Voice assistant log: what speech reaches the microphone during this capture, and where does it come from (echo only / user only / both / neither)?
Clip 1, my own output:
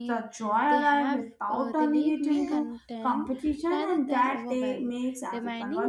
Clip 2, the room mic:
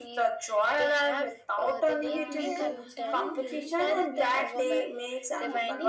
both